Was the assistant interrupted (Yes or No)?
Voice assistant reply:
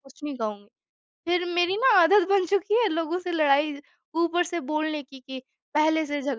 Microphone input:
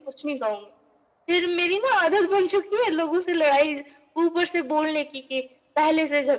No